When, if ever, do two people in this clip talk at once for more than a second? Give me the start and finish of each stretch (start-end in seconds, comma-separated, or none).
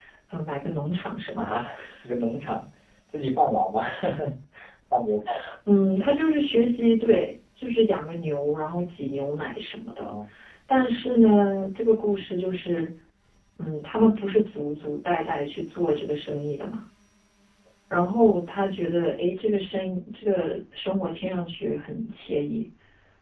none